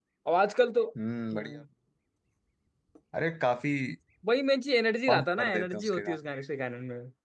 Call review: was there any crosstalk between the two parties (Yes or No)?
Yes